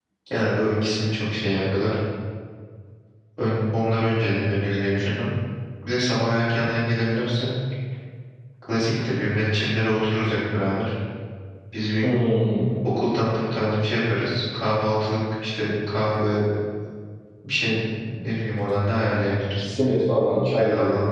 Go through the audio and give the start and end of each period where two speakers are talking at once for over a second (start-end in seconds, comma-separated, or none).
none